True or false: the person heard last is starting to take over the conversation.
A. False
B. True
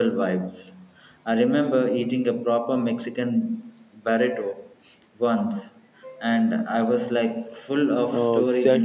B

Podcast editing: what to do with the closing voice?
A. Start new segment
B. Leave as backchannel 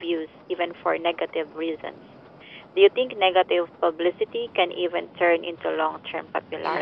A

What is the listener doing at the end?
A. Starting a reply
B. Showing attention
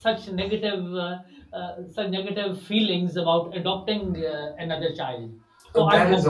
A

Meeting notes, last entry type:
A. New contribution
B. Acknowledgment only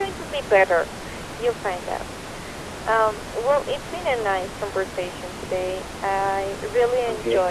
B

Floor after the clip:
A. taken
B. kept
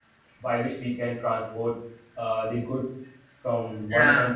B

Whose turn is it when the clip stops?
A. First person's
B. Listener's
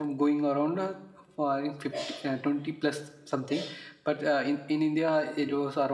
A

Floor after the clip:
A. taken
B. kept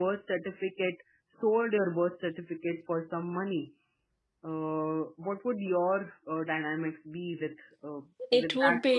A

